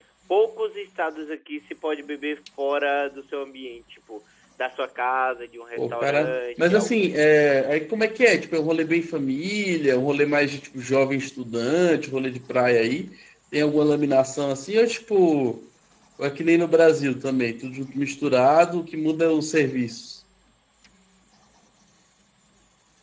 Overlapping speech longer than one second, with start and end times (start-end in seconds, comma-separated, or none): 5.8-7.4